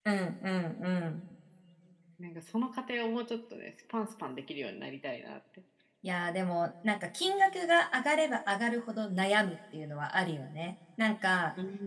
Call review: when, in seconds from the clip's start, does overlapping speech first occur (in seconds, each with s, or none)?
none